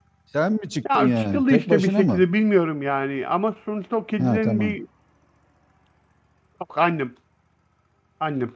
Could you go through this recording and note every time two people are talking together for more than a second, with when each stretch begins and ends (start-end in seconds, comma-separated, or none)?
0.9-2.2